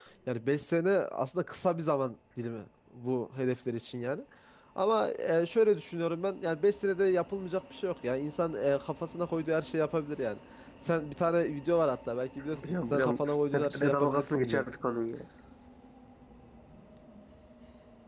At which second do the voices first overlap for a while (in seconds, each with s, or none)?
12.5 s